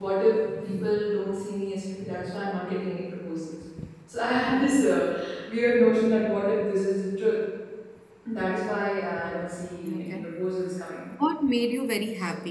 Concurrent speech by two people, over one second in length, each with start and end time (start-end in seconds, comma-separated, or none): none